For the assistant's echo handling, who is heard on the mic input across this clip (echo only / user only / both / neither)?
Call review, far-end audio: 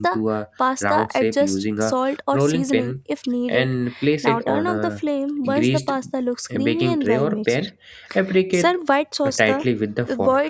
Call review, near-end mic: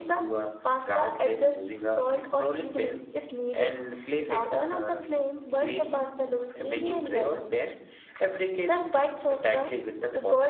echo only